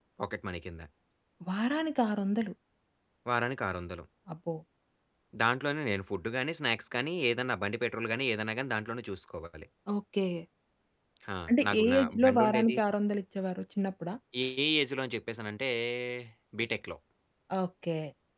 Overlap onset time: 11.5 s

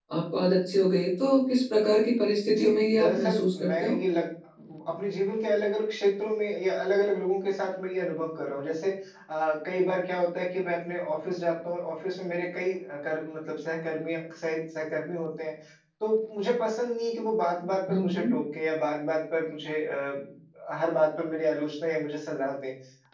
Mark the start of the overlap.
2.5 s

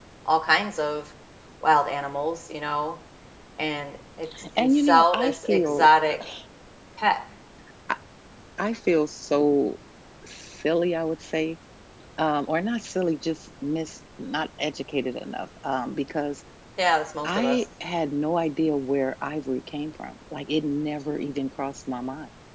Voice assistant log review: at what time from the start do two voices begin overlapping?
4.6 s

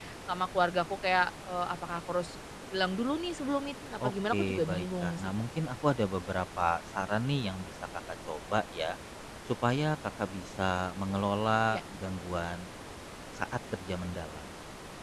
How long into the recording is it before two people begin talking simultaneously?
4.0 s

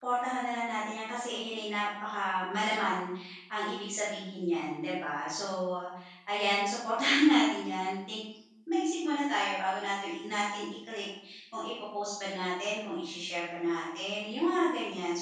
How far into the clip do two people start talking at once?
none

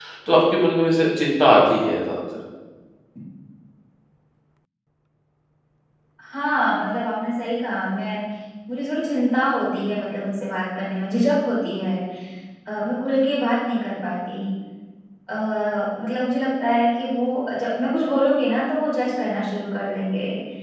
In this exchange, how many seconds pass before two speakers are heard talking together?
none

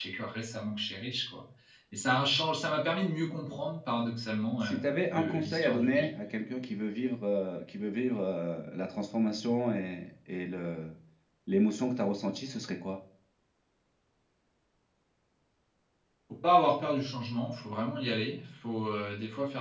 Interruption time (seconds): 4.6 s

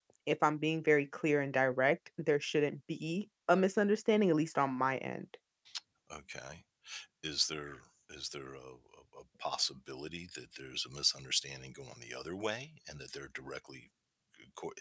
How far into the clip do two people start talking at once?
none

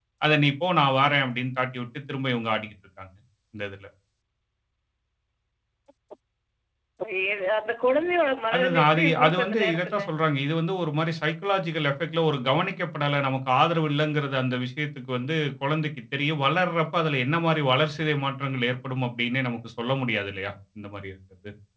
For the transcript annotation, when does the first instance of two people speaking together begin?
8.5 s

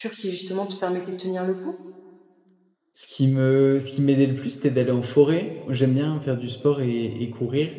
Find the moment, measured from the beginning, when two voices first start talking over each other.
none

